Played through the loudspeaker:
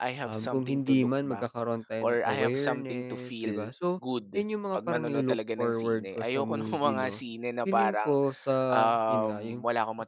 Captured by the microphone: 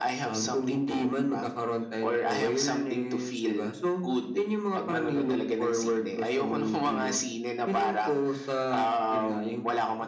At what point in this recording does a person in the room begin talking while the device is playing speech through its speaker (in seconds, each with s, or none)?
none